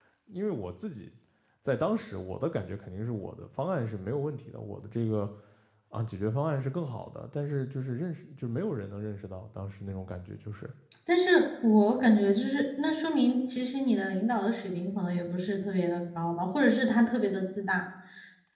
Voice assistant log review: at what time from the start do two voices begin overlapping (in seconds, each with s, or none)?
none